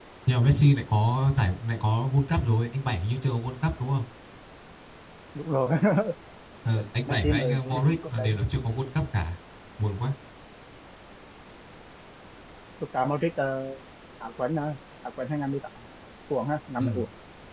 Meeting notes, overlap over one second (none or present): present